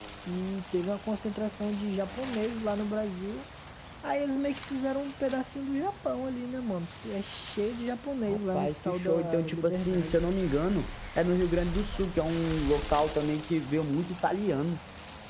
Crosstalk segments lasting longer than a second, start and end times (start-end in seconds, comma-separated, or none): 8.3-10.2